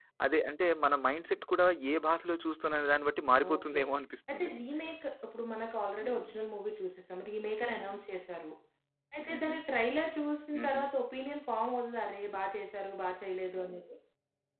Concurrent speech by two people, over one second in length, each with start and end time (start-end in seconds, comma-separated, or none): none